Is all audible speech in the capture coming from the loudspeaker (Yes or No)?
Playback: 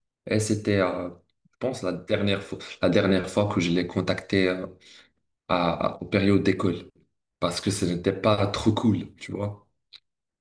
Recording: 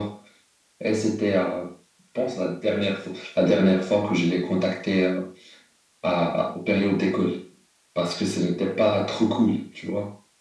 Yes